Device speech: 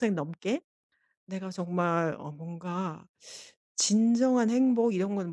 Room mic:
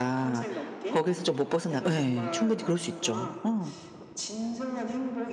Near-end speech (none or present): present